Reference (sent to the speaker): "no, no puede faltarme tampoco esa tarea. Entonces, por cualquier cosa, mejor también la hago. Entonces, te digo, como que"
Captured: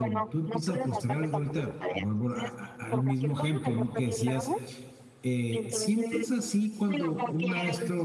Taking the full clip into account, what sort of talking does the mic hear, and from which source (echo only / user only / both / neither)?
both